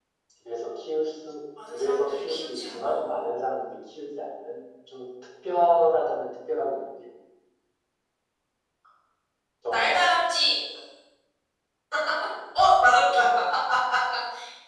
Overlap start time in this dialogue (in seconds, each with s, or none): 1.7 s